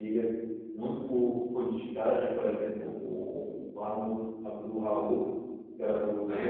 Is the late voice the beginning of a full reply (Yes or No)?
No